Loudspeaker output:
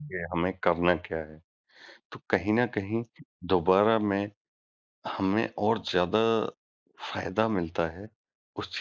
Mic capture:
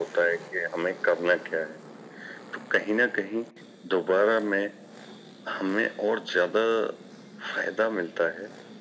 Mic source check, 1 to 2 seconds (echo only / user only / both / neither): echo only